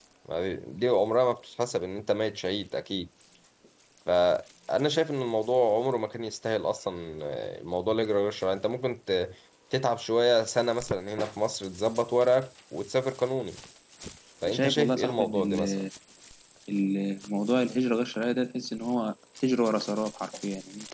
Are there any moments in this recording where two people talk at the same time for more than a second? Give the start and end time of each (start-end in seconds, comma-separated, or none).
14.4-15.8